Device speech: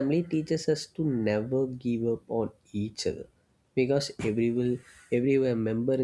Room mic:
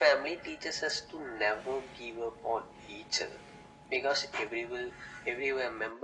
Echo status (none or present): present